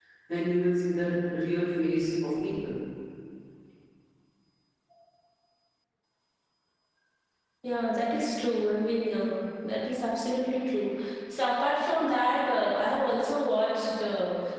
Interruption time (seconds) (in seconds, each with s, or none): none